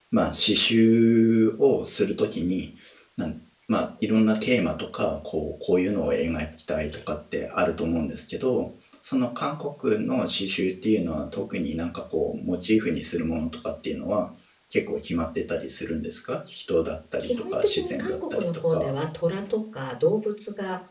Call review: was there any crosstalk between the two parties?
Yes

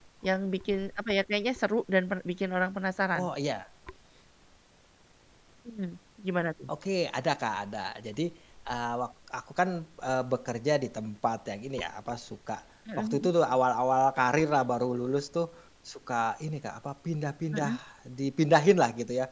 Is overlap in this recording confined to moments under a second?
Yes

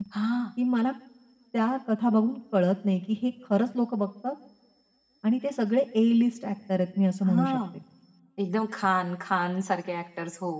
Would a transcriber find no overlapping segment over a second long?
Yes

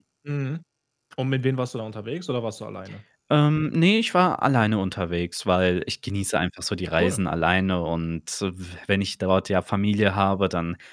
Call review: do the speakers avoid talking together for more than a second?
Yes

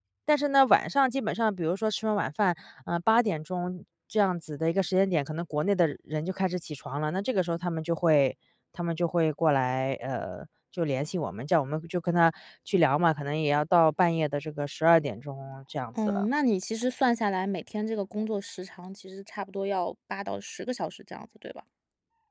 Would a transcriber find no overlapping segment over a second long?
Yes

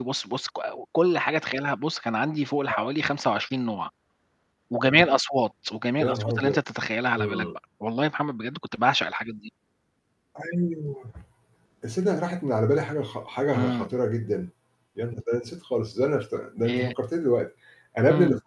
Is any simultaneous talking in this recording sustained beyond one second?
No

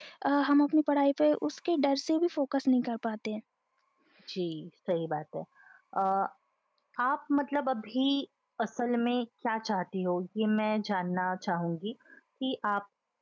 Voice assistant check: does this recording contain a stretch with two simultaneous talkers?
No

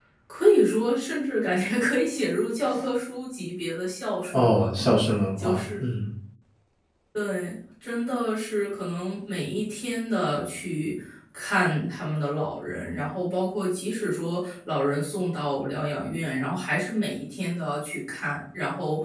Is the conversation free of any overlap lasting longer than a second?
Yes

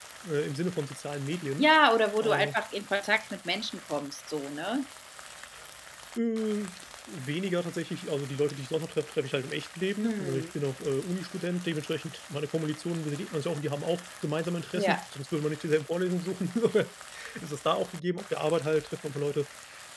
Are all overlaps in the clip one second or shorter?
Yes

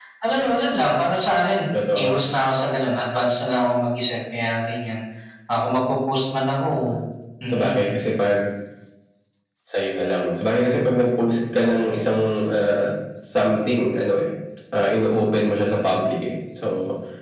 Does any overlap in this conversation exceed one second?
No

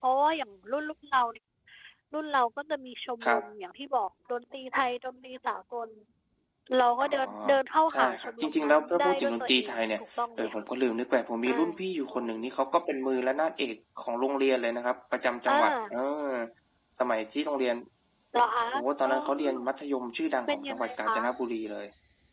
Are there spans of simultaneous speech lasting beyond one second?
Yes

